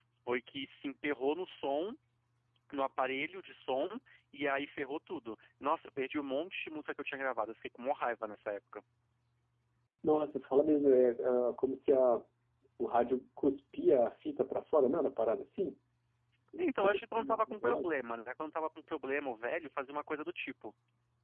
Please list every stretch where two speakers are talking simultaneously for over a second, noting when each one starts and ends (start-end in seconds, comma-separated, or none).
16.6-17.9